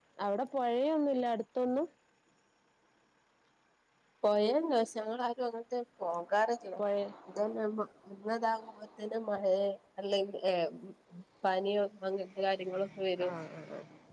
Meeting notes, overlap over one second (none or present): none